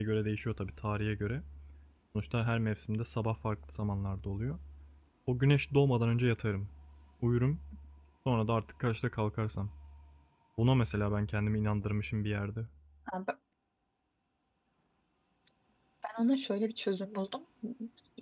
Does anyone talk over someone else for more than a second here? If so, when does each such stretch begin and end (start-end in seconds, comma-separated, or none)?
none